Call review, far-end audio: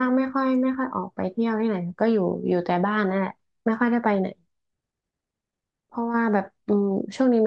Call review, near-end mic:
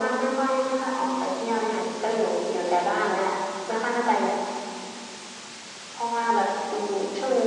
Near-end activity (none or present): none